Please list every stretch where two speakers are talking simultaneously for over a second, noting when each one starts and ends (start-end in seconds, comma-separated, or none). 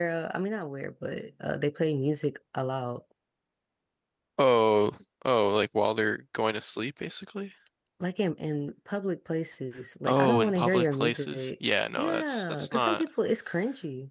10.1-13.1